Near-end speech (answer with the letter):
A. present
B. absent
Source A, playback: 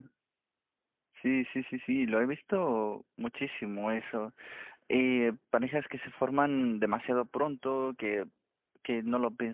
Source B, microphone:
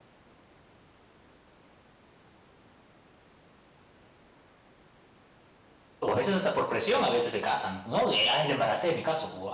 A